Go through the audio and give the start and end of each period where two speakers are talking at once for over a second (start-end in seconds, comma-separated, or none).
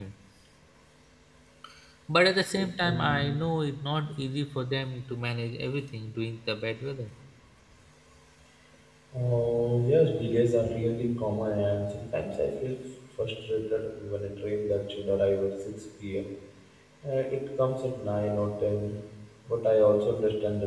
none